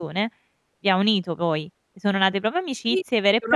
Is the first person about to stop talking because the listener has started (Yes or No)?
Yes